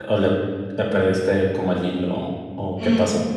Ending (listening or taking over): taking over